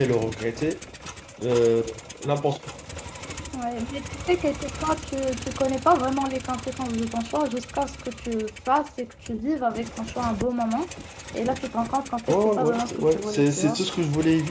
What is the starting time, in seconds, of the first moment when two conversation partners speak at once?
12.3 s

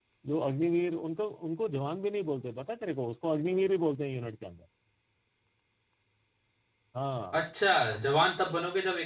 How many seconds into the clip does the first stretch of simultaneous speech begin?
none

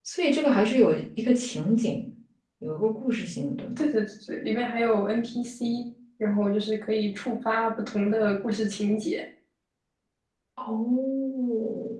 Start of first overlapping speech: none

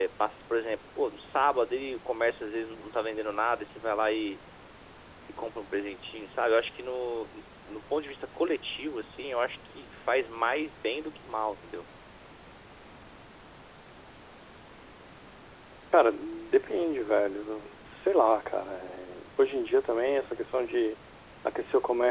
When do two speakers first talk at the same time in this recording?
none

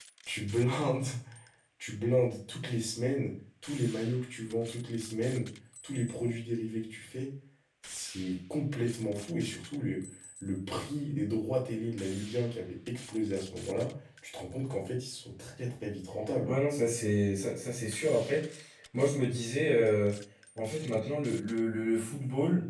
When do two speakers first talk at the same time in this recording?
none

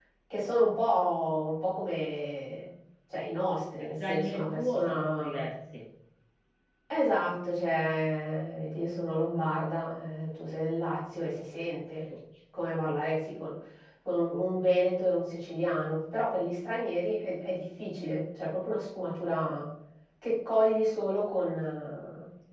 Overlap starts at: 3.8 s

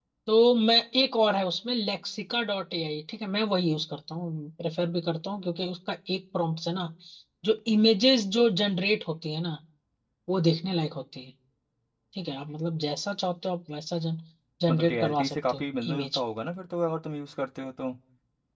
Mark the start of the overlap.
14.7 s

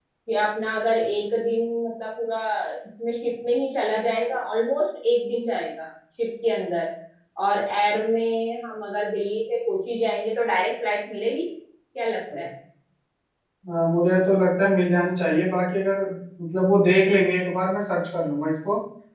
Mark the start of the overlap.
none

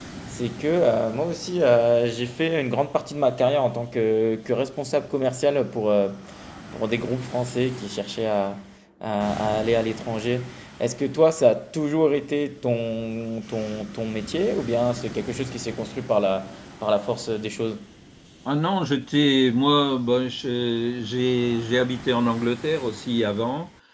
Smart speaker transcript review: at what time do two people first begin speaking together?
none

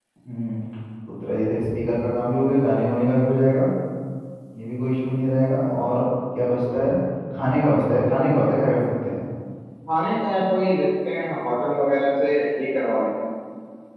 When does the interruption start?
none

